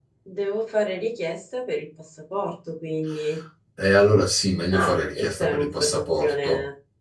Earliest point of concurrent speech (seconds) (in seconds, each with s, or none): 4.7 s